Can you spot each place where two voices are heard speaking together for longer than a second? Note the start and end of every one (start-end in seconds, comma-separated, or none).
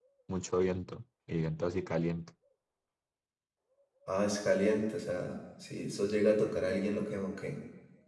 none